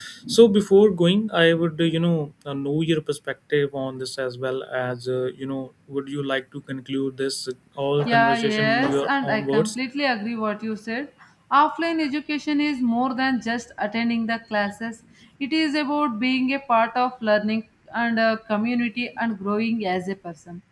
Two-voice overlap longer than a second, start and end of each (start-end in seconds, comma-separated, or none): 8.1-9.8